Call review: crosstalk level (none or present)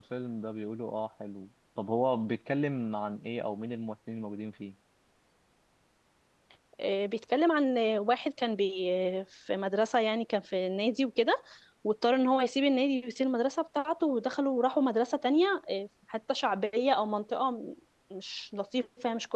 none